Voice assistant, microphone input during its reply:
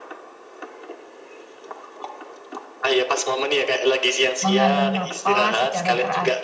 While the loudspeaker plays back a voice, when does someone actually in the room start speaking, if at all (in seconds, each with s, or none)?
4.4 s